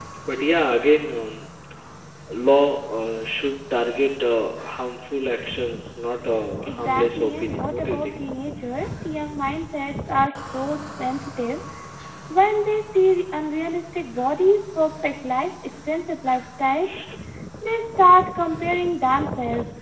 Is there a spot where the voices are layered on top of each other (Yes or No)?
Yes